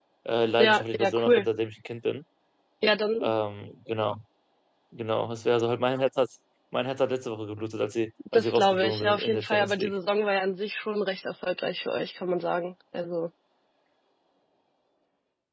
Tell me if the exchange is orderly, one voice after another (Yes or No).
No